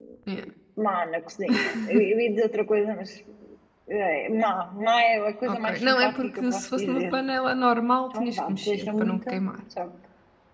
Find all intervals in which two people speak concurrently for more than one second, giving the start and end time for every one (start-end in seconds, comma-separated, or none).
5.5-7.1, 8.2-9.4